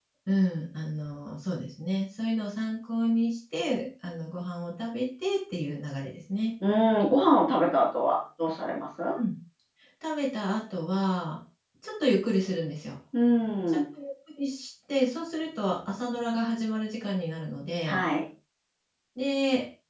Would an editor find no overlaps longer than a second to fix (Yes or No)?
Yes